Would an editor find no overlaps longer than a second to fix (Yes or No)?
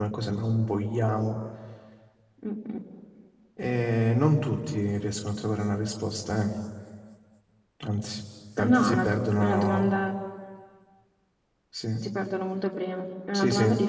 No